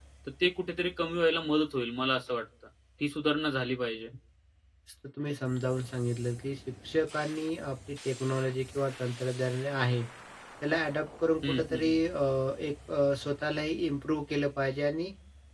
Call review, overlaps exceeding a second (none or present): none